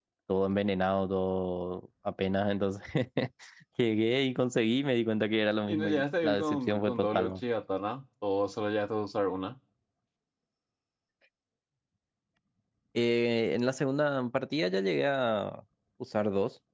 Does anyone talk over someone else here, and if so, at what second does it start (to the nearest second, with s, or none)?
6 s